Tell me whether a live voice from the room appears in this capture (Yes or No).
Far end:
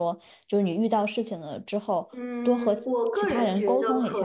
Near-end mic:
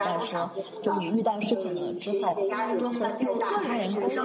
Yes